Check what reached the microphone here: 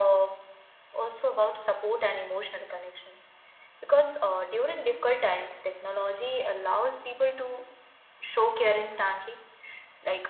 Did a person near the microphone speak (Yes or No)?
No